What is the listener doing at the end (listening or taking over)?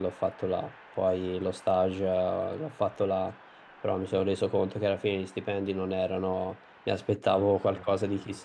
listening